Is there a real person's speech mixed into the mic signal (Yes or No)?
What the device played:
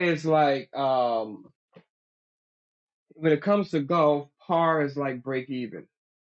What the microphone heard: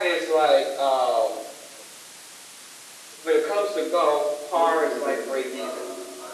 Yes